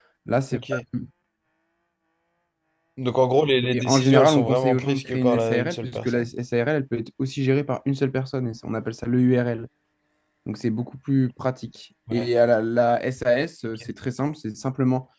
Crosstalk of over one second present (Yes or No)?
Yes